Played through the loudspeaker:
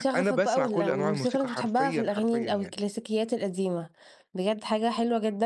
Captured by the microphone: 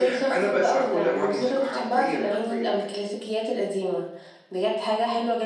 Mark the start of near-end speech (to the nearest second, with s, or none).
none